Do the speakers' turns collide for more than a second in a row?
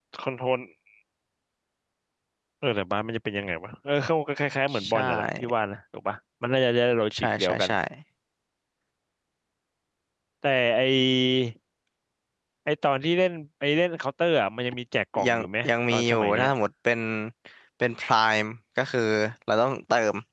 Yes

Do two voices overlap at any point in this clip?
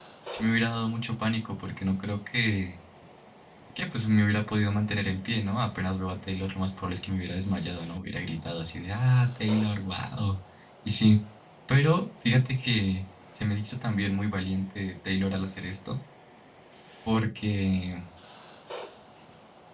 No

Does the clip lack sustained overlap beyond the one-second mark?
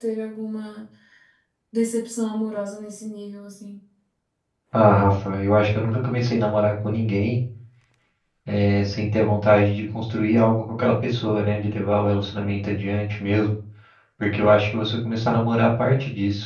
Yes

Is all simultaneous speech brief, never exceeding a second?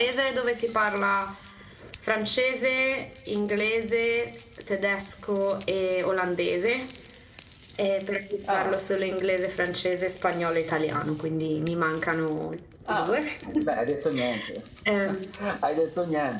Yes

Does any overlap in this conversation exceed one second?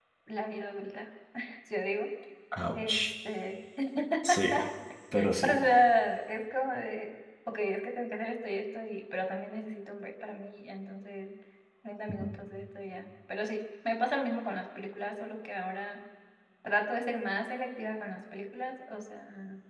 No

